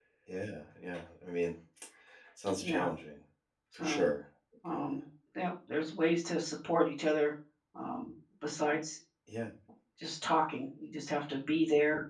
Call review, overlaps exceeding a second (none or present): none